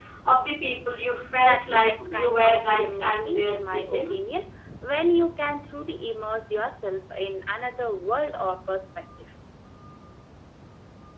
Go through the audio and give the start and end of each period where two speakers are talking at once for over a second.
1.4-4.1

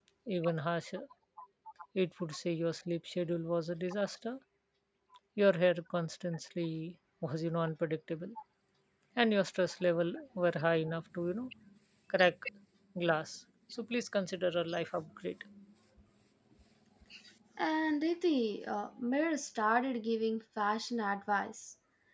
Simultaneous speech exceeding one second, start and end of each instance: none

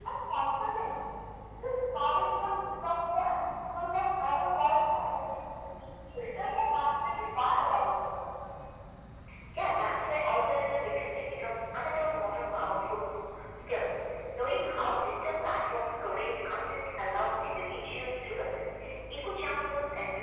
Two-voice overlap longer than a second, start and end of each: none

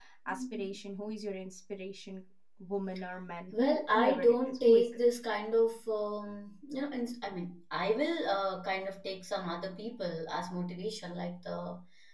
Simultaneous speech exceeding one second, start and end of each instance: 3.5-5.0

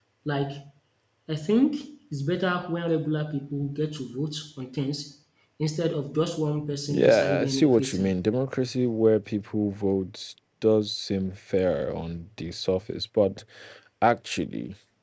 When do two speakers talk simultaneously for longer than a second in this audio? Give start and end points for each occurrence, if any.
6.9-8.1

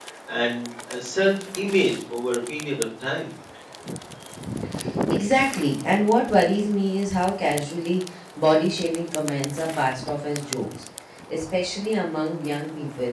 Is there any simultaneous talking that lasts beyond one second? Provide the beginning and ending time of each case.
none

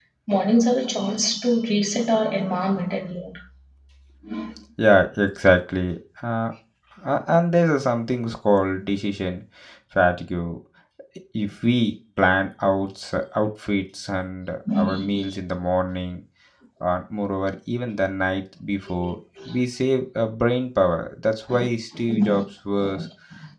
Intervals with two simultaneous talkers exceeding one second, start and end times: none

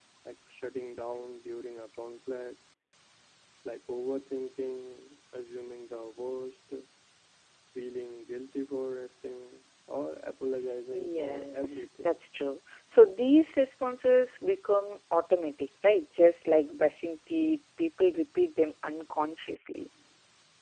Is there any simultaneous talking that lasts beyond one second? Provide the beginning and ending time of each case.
10.9-12.2

